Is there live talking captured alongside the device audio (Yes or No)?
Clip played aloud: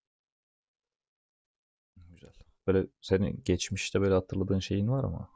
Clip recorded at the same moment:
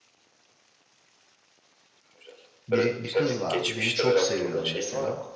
Yes